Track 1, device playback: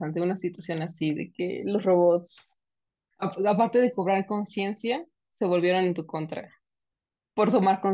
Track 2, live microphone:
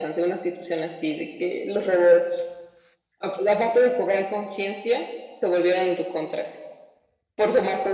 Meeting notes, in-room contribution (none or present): none